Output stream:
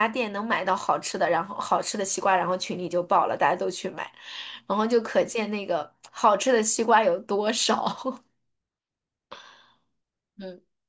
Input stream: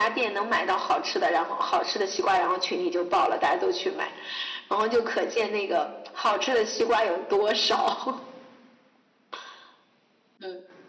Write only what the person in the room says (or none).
none